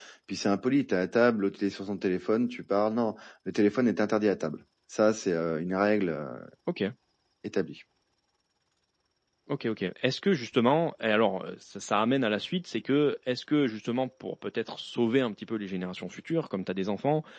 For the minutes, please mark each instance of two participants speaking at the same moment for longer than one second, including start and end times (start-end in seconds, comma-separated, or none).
none